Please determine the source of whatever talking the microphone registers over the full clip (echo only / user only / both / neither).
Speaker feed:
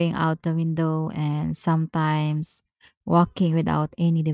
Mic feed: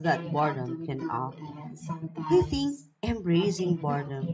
both